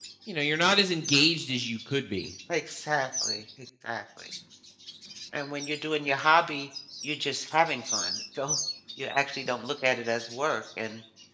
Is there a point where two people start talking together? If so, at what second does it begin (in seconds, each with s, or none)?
none